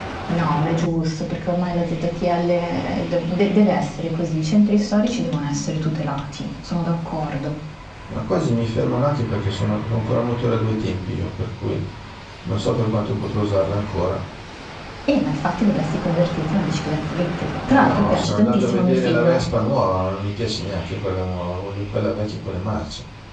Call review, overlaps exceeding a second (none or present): present